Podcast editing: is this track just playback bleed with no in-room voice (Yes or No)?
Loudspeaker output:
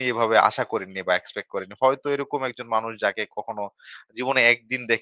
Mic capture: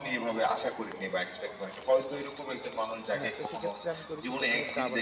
No